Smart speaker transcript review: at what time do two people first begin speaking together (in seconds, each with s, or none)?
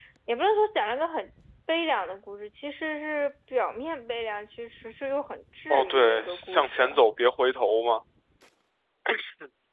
5.7 s